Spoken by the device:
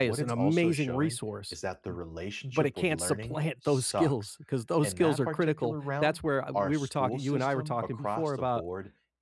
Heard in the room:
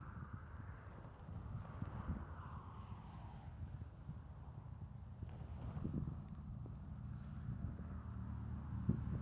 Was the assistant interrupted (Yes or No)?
No